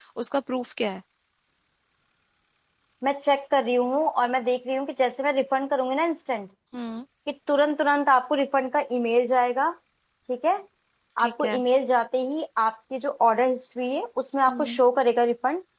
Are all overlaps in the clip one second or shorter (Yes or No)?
Yes